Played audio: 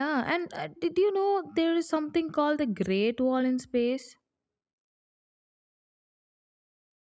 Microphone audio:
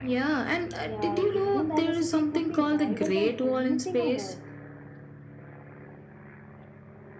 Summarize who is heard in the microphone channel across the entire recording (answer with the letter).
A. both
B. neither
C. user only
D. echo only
A